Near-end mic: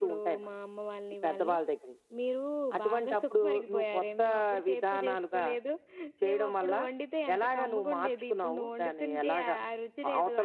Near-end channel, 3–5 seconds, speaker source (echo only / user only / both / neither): echo only